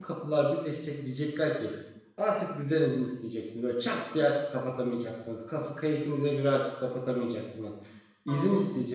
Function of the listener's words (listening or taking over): listening